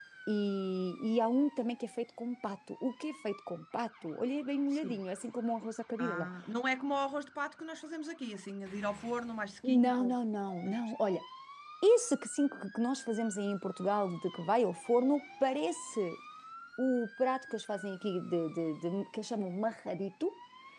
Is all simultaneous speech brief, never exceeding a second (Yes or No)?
Yes